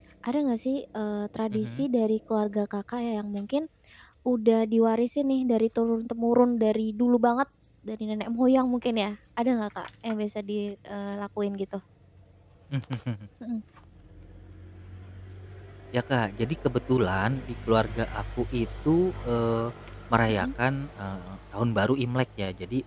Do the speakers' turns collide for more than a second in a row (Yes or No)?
No